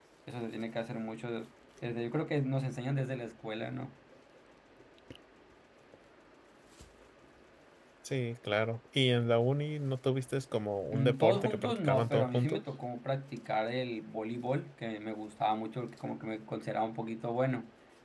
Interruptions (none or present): present